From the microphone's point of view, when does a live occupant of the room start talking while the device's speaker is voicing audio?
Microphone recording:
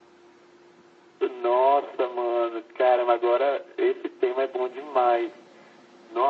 none

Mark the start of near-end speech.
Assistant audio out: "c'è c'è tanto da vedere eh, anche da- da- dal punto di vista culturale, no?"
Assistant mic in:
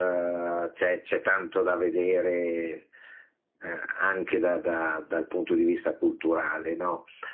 none

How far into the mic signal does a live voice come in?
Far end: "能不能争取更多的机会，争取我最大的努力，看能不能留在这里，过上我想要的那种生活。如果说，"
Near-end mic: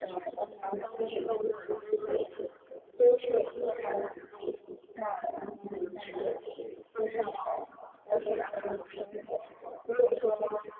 none

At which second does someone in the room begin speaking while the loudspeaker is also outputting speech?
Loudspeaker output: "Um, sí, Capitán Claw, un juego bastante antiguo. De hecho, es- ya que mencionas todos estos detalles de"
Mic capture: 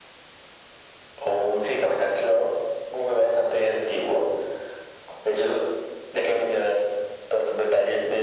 none

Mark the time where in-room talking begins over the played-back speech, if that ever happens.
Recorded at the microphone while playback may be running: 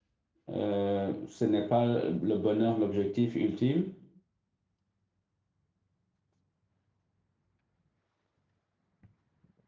0.5 s

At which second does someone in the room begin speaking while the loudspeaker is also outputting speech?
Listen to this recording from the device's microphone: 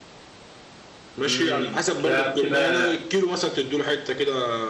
1.2 s

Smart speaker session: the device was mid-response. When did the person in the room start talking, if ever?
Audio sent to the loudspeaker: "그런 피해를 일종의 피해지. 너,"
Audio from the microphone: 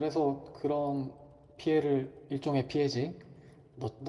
none

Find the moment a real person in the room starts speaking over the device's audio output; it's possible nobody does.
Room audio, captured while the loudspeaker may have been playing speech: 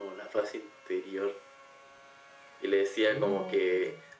3.1 s

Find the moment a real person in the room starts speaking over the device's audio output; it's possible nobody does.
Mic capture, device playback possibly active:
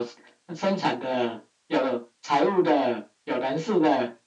none

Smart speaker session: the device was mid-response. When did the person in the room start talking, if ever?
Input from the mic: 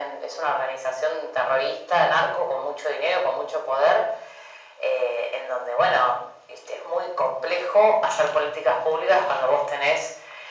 none

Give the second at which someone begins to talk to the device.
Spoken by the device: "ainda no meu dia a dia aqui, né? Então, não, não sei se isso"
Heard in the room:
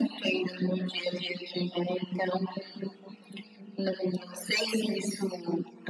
none

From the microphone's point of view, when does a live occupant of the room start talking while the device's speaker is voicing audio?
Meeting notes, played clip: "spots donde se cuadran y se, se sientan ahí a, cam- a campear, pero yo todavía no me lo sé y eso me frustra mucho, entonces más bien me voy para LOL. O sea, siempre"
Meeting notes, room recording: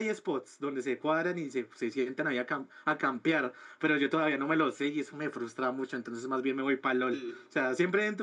7.1 s

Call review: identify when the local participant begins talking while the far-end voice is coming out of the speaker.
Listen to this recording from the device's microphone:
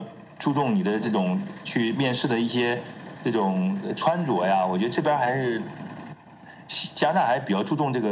none

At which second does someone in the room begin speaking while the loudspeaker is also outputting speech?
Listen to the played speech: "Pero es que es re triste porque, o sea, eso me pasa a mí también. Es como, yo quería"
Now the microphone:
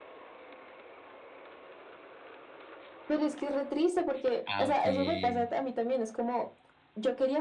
4.5 s

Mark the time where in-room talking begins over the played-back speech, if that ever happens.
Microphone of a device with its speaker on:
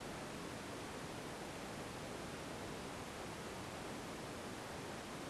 none

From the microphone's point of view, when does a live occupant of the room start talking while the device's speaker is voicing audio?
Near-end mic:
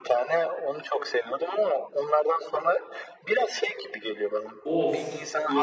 4.6 s

